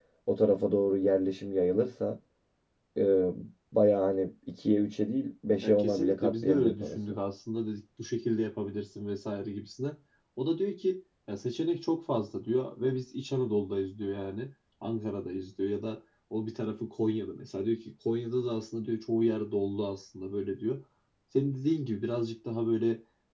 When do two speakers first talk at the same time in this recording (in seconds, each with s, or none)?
5.6 s